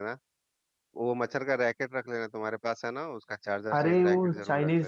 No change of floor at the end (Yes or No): No